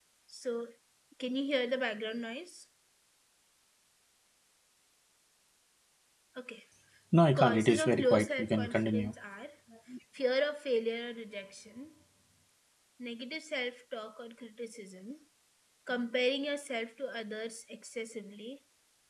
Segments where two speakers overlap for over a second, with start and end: 7.4-9.1

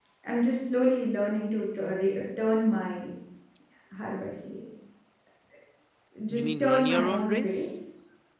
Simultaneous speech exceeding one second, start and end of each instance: 6.3-7.7

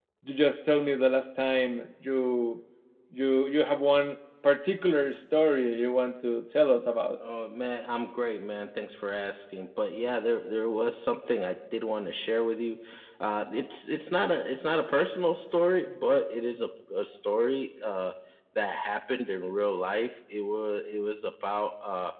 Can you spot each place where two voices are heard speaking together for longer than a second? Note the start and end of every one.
none

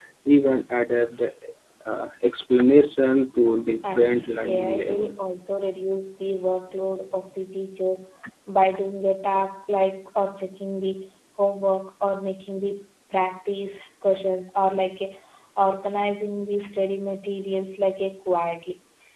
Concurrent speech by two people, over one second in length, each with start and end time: 3.8-5.2

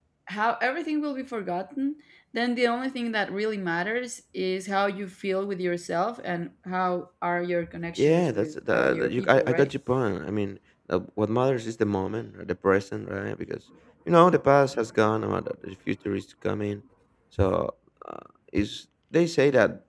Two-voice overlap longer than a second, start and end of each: 8.0-9.7

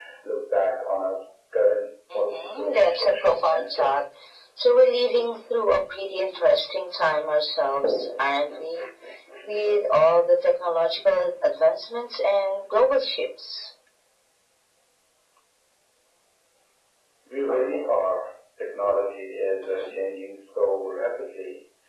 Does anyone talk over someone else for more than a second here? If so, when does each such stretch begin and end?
2.1-3.9

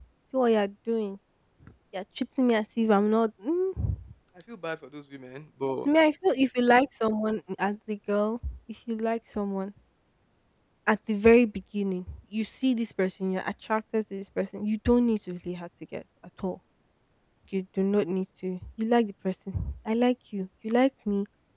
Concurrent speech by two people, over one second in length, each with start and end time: none

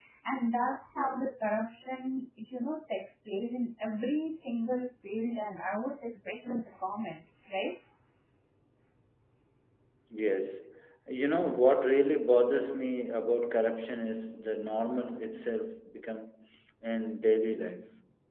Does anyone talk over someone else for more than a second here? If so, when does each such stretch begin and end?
none

